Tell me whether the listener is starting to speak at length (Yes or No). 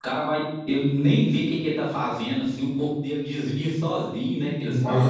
Yes